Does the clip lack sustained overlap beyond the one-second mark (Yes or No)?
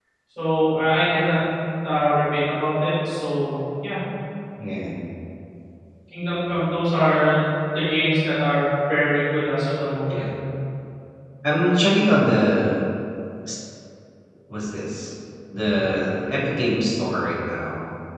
Yes